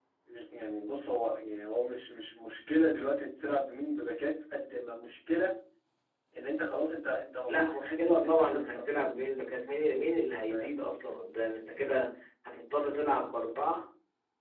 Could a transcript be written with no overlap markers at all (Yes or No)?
No